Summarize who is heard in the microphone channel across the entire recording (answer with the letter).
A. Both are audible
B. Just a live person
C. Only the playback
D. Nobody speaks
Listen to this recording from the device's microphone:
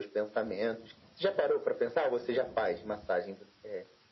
C